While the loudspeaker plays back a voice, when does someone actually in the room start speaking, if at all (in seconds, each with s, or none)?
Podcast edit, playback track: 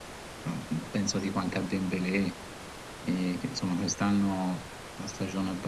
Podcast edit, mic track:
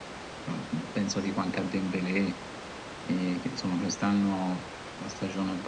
none